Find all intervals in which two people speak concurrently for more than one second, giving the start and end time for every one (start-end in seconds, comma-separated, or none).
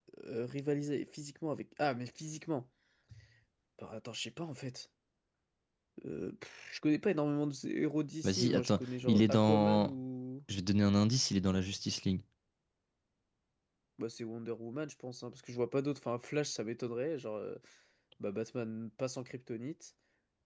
8.2-9.9